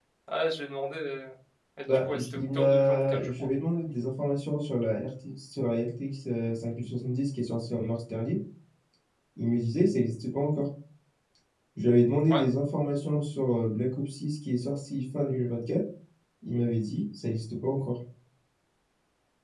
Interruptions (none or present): present